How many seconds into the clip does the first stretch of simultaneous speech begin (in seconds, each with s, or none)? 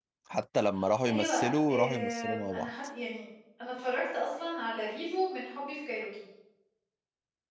1.1 s